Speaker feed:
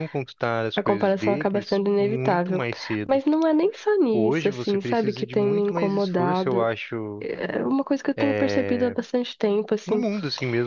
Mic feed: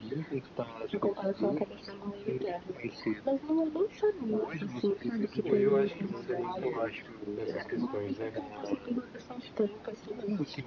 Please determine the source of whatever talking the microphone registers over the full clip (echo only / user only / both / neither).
both